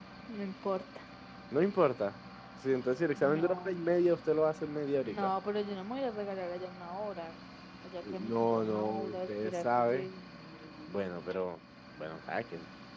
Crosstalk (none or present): present